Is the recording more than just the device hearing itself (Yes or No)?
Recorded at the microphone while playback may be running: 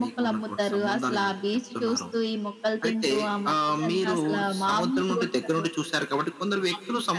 No